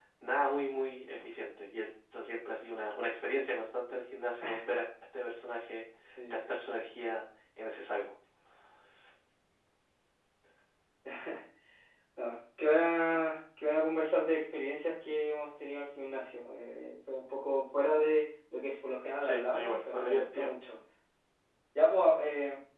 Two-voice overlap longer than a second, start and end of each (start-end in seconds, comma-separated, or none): 19.2-20.5